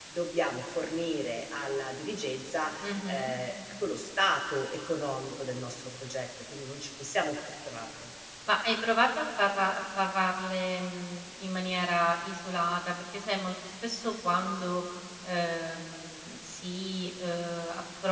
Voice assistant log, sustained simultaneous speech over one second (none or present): none